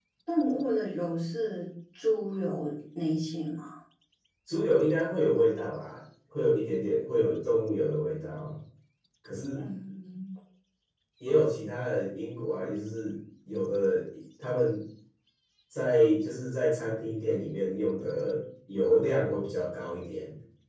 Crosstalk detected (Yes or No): No